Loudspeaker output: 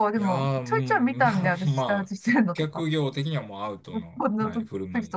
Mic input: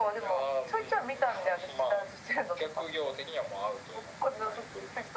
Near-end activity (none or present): none